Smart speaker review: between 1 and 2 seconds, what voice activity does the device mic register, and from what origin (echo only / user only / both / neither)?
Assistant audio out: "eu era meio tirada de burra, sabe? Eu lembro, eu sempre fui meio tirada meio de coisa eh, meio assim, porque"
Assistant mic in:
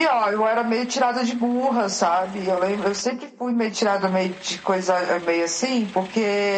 echo only